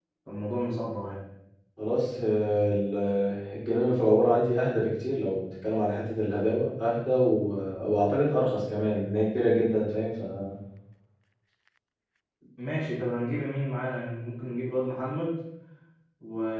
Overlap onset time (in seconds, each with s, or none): none